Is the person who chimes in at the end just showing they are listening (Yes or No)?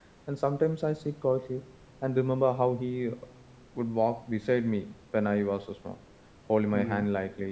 Yes